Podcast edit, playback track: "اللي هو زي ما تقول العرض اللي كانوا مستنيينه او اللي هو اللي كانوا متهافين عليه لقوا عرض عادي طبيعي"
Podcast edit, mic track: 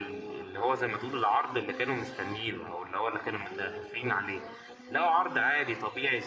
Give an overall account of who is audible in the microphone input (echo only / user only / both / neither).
echo only